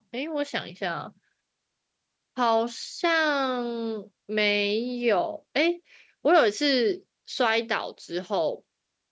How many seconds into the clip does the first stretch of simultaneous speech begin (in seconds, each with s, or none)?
none